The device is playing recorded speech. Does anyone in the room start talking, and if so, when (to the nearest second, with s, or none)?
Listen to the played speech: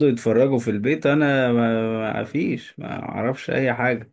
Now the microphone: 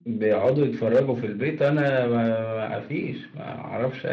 none